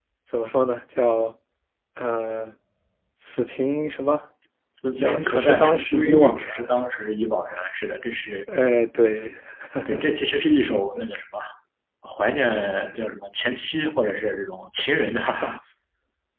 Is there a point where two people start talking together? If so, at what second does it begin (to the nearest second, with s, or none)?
5 s